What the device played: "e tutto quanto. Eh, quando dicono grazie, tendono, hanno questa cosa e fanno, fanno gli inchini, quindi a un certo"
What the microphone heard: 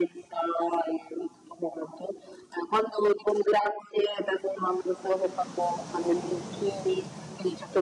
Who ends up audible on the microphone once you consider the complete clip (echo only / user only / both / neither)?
echo only